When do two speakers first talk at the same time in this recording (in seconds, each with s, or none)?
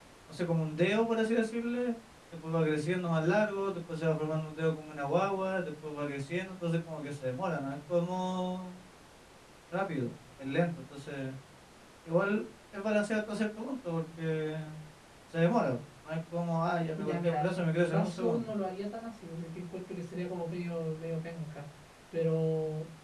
17.0 s